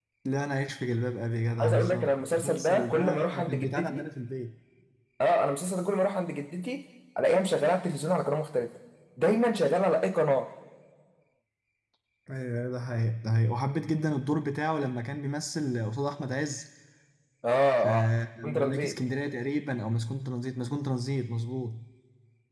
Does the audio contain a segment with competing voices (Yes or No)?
Yes